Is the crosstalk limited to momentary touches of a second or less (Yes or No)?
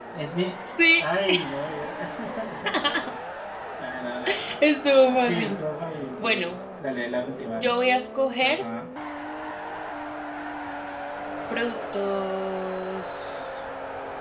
Yes